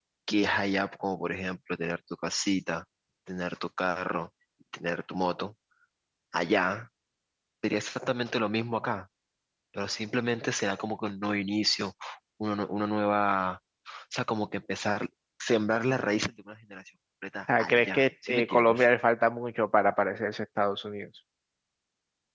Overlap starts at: 17.5 s

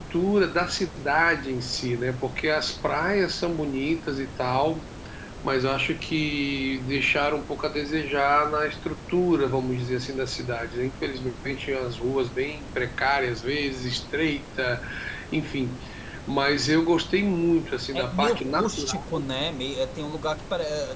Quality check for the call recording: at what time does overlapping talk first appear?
17.9 s

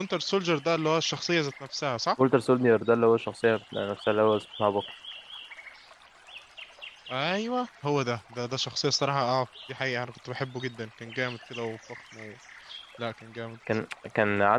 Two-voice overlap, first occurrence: none

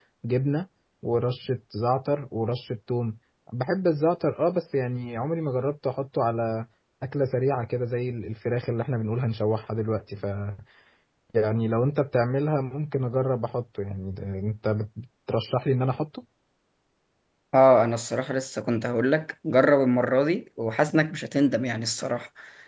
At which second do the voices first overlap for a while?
none

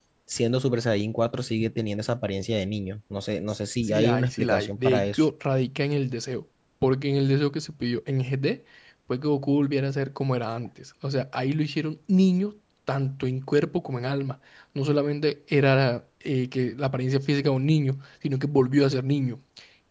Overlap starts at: 3.9 s

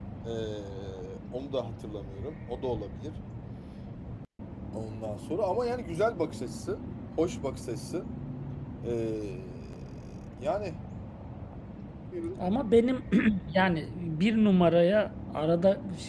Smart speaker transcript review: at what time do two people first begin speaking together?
none

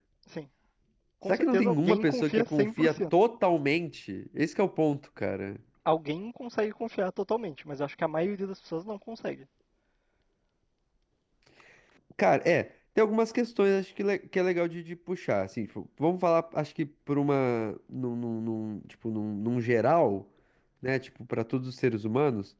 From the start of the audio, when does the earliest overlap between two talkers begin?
1.3 s

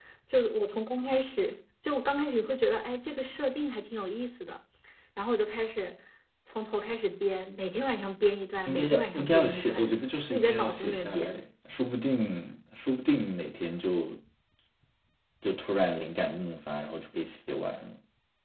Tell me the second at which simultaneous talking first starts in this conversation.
8.7 s

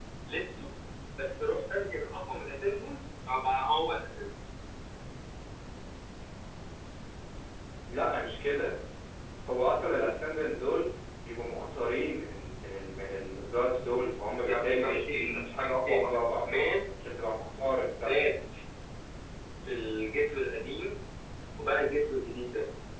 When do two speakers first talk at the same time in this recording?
14.4 s

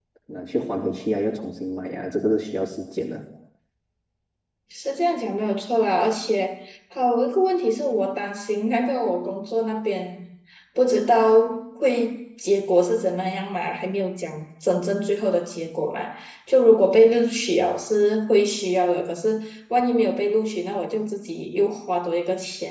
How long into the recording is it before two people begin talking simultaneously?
none

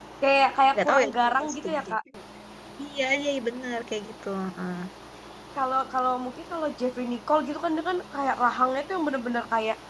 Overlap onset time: 0.7 s

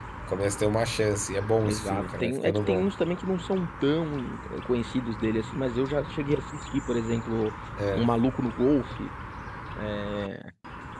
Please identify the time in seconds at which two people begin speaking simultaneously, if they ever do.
1.6 s

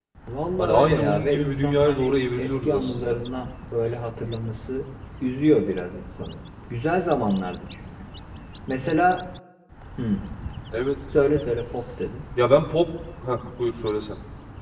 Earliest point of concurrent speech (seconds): 0.6 s

